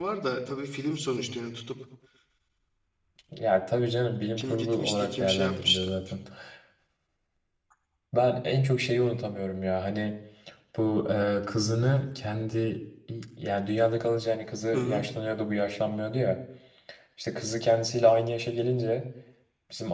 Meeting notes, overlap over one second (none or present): present